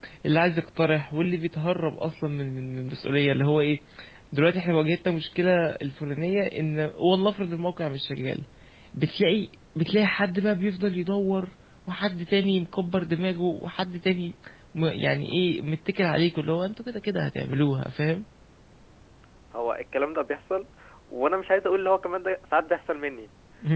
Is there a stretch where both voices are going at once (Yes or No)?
No